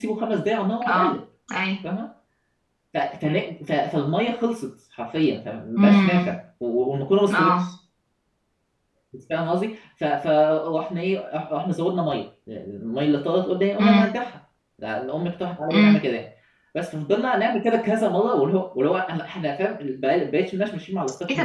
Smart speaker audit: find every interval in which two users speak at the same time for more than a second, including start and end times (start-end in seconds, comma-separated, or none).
none